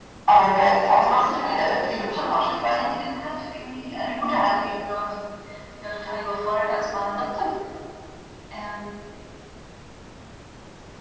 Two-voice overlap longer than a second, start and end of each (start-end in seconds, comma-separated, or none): 0.8-3.0